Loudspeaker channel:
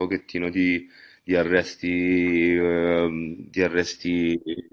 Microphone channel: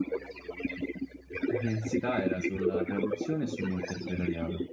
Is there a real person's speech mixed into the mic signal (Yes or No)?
Yes